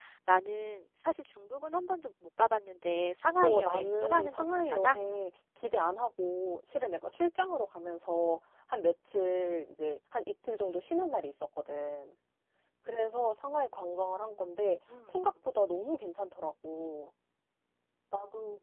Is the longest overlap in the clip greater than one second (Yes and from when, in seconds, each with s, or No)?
Yes, from 3.4 s